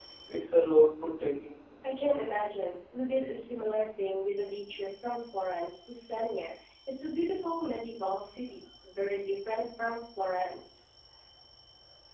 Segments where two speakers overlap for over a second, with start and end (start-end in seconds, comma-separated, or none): none